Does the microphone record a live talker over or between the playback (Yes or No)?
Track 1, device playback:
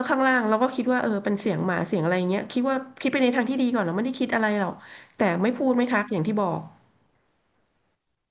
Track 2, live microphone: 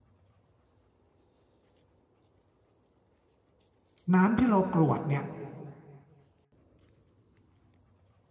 Yes